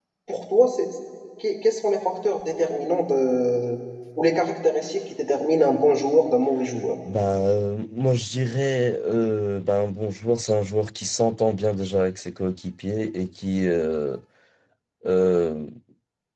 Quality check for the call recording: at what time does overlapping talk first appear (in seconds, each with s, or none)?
none